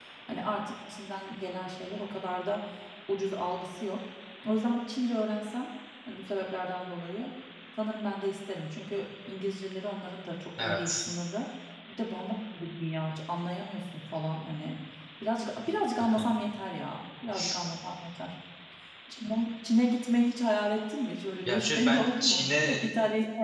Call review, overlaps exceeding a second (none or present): present